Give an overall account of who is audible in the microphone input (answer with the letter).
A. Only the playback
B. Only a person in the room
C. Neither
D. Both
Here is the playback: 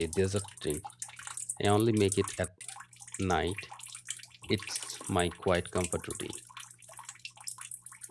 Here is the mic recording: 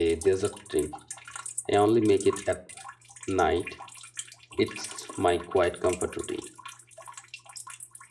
A